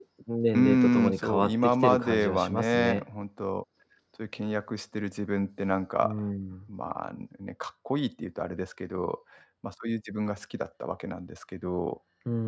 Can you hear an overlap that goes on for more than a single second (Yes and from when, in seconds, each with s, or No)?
Yes, from 0.5 s